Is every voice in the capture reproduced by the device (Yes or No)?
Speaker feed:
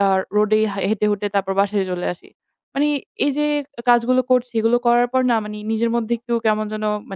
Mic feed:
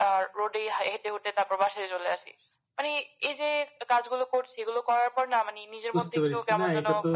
No